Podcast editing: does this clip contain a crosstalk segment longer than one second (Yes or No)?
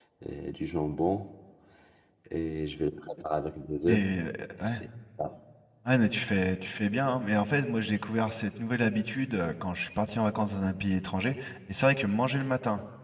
No